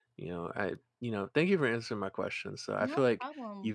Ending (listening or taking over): listening